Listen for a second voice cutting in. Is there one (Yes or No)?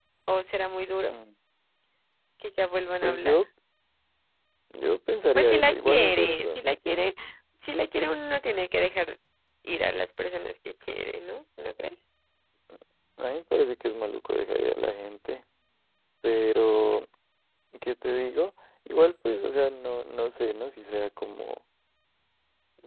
Yes